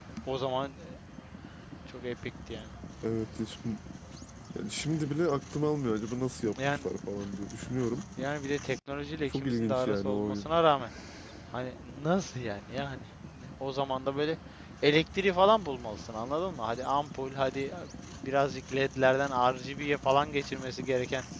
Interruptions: present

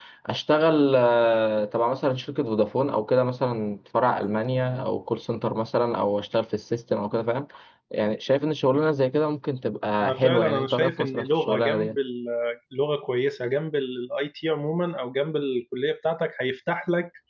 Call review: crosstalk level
present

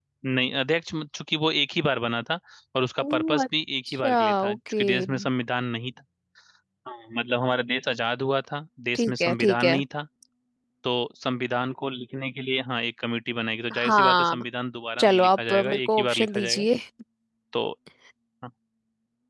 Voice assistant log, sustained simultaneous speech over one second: present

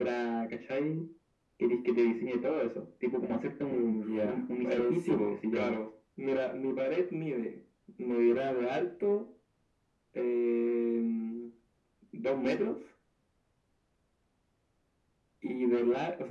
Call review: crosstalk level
present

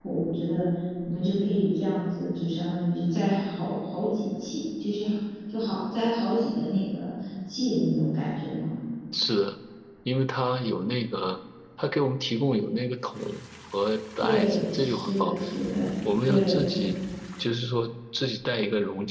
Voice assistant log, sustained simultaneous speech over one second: present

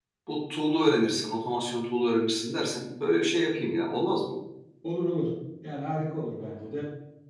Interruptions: none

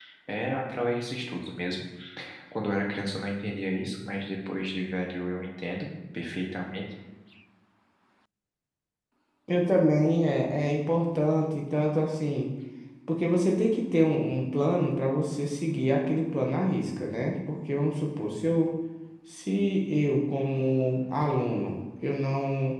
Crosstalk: none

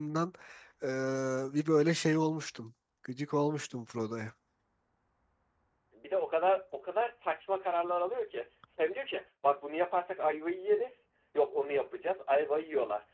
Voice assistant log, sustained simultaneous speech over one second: none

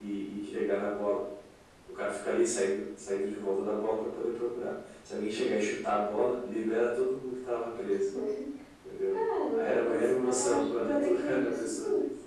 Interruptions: present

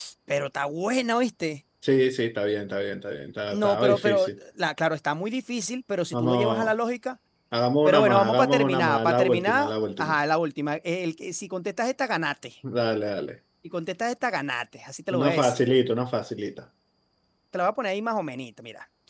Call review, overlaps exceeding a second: present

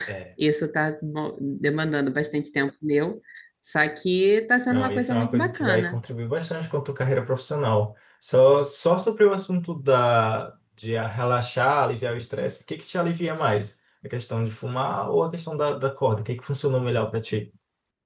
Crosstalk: present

